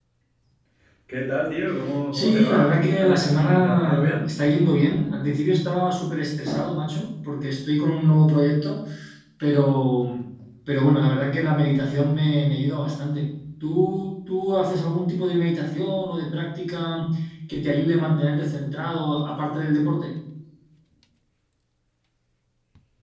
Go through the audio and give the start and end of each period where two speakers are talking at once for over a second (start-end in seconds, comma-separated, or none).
2.1-4.3